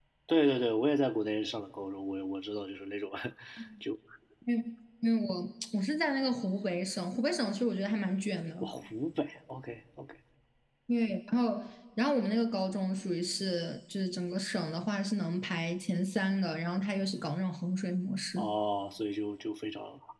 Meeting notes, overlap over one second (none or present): none